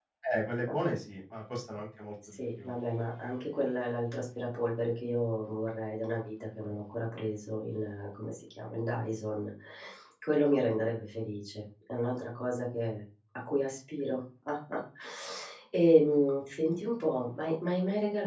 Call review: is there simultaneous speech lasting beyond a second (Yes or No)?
No